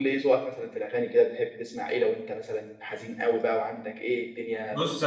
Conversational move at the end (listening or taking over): taking over